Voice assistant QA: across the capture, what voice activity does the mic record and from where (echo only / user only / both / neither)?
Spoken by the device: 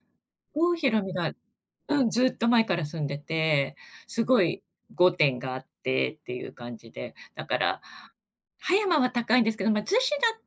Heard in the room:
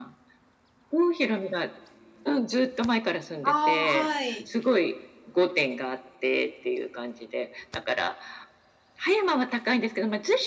both